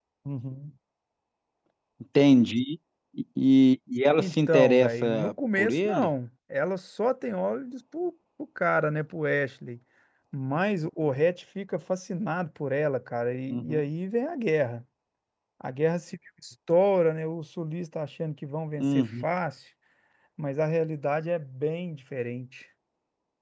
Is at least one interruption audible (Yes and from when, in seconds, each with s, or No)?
Yes, from 4.2 s